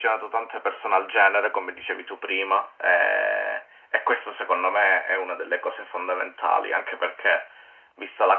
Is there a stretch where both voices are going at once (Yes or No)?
No